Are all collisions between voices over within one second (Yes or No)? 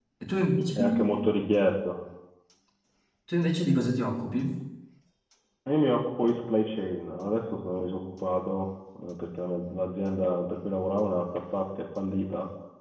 Yes